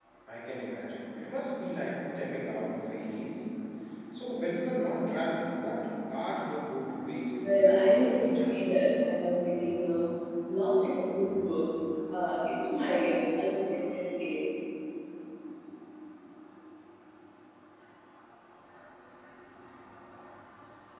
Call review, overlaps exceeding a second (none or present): present